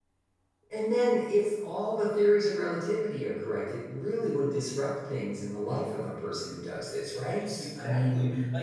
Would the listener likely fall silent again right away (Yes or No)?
No